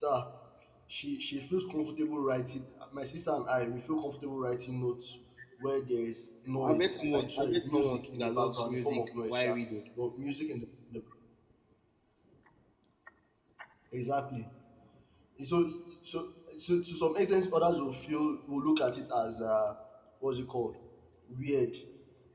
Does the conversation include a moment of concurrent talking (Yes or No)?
Yes